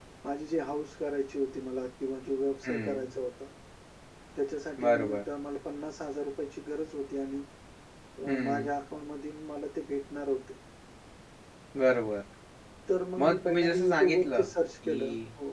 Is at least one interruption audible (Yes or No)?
Yes